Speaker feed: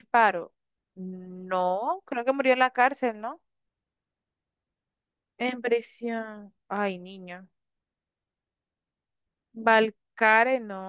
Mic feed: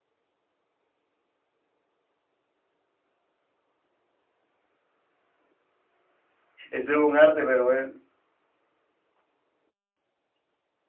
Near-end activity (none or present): present